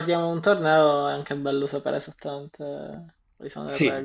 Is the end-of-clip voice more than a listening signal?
Yes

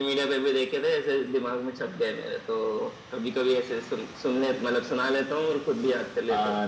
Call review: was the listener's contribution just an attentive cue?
No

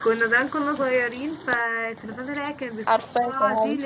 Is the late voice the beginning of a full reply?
No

